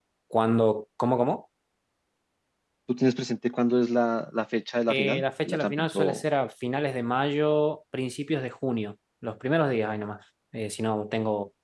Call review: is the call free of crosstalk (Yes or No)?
No